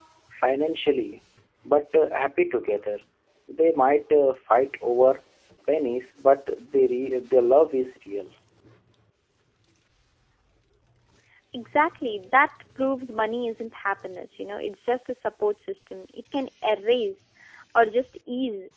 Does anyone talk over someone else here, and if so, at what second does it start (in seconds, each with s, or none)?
none